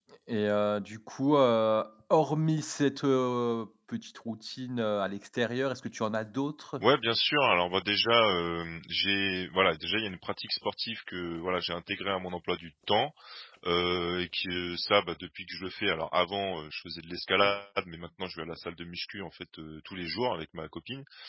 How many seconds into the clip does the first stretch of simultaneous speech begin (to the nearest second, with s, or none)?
none